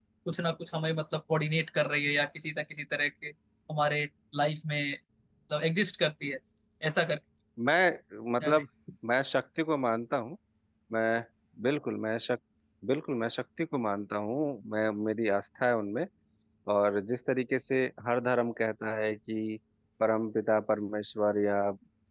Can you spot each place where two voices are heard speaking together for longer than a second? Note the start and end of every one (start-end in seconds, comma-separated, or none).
none